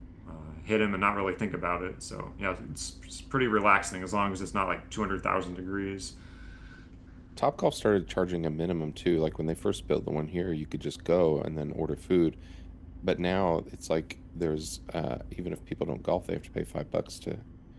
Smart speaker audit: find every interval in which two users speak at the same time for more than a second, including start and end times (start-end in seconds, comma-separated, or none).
none